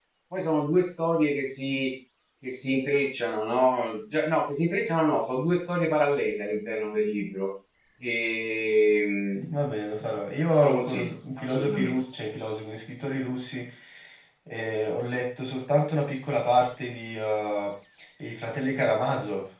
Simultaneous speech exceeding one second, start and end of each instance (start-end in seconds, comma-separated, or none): 10.6-11.9